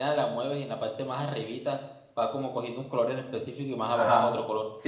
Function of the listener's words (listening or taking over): taking over